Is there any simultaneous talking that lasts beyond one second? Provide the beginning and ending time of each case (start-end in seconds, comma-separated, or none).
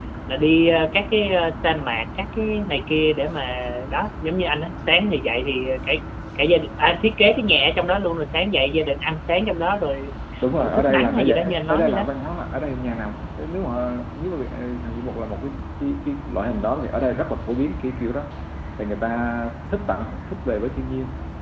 10.6-12.0